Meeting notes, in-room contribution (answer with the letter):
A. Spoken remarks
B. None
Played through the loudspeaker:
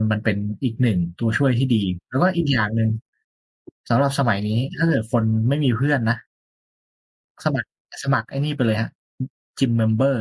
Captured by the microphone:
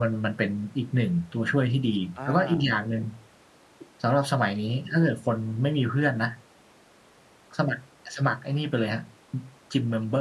A